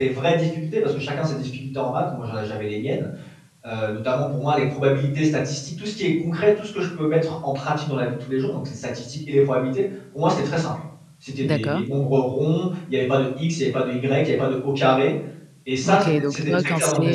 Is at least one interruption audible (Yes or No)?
Yes